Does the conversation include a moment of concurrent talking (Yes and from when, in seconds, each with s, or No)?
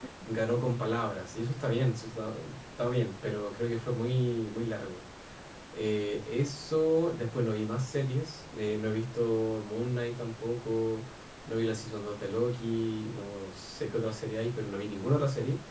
No